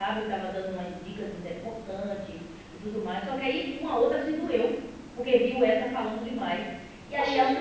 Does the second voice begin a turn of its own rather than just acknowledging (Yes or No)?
No